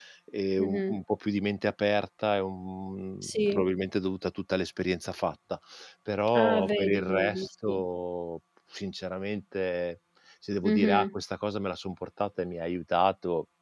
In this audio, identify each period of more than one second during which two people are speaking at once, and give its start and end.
6.4-7.8

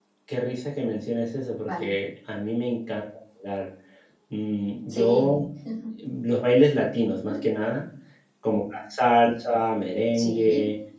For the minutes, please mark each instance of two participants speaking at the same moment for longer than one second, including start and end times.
none

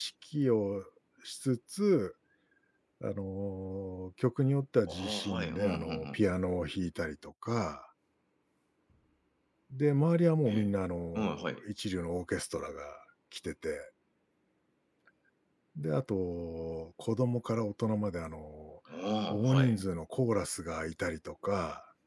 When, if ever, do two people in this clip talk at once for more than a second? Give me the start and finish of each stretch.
4.9-6.2

